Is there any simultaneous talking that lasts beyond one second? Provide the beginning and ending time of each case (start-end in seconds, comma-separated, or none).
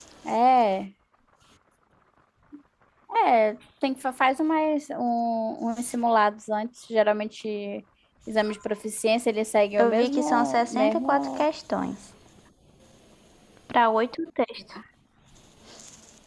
9.8-11.5